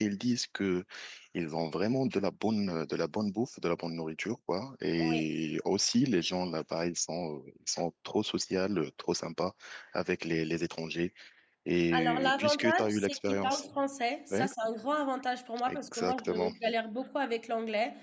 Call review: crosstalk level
present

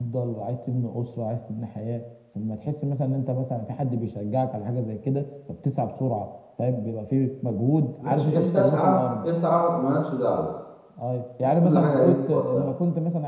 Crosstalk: present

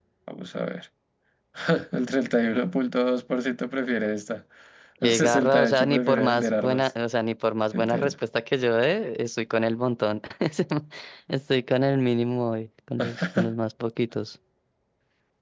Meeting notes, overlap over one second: present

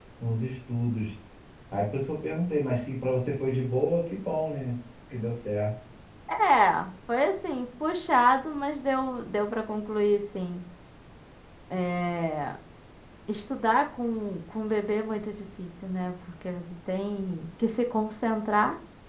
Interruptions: none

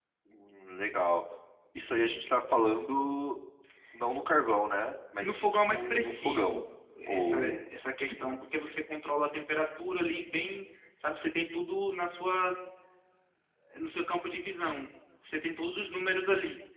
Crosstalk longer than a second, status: present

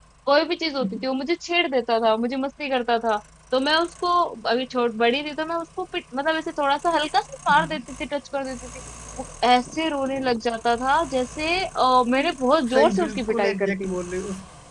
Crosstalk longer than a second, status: present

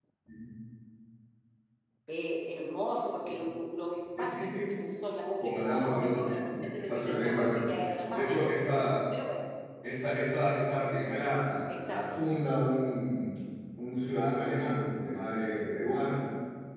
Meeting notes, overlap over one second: present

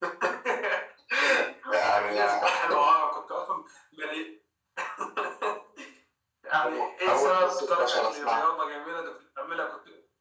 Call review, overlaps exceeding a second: present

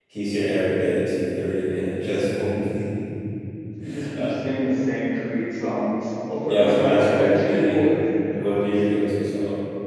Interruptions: present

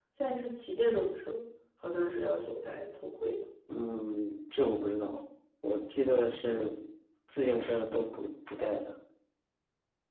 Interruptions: none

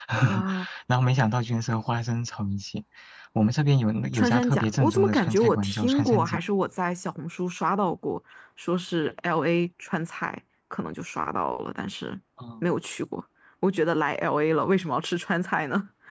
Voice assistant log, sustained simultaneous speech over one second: present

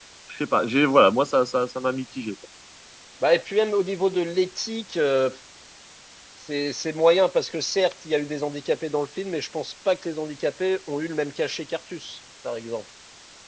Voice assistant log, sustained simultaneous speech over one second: none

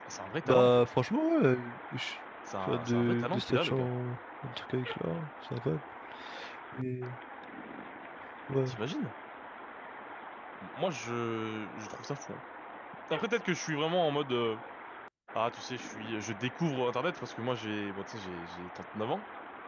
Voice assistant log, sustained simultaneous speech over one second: present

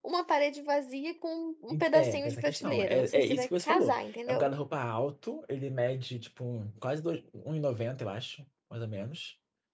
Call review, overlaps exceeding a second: present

